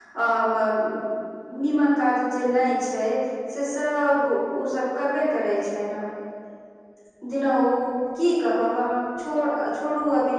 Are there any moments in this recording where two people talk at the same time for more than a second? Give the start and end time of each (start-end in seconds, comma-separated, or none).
none